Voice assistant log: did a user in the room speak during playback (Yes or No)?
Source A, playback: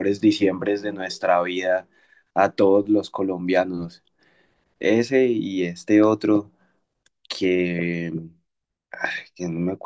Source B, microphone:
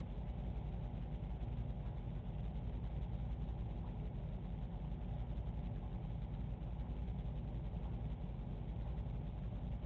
No